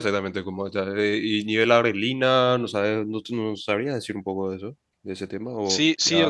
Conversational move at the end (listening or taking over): taking over